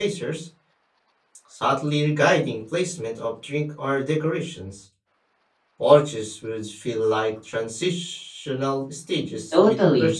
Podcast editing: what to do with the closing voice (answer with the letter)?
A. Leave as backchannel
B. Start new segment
B